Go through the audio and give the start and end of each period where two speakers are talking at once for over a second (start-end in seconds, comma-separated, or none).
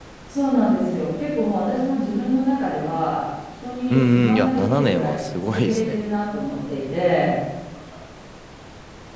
3.9-6.0